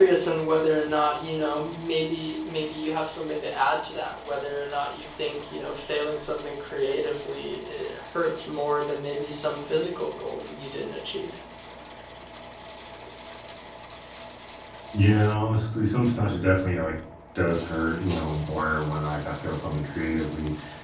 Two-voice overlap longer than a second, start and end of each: none

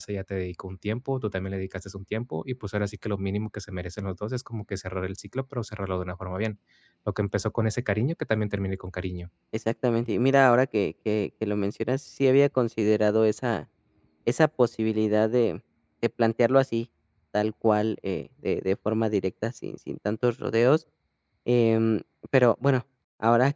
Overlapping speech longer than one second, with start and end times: none

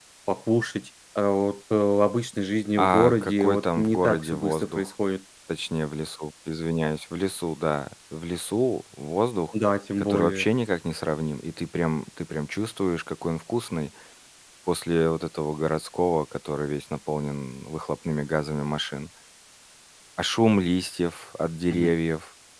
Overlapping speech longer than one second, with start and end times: 2.8-4.9

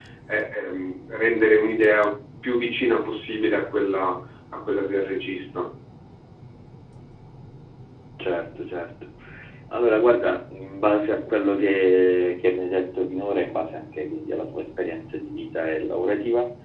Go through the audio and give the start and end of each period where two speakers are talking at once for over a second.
none

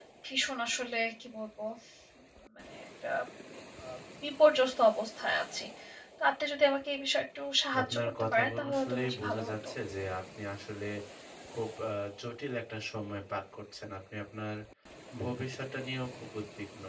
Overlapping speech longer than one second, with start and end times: 7.8-9.7

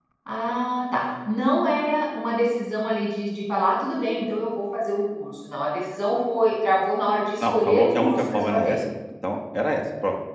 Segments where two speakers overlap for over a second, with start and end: 7.4-8.8

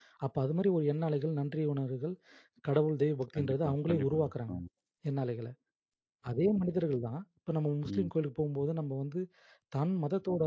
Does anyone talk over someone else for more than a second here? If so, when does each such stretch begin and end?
3.4-4.6

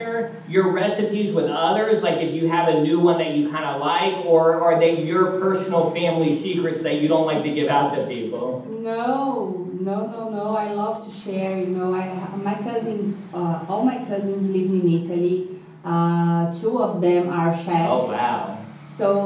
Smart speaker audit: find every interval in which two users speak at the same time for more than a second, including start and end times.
none

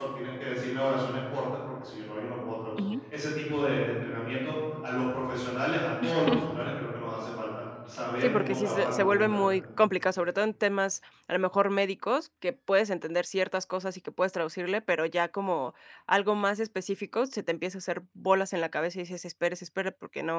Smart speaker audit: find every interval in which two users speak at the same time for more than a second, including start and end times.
8.2-9.6

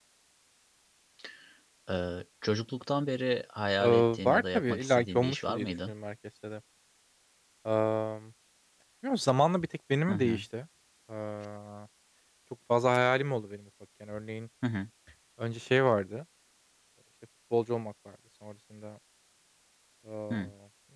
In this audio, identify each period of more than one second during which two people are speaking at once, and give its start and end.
3.8-5.9

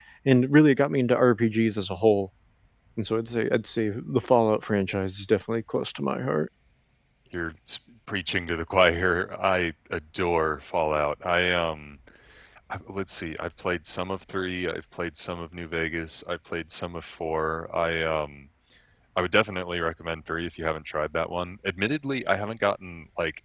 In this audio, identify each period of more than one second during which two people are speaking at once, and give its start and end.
none

